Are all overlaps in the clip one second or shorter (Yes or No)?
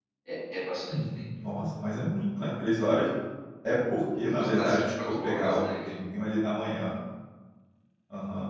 No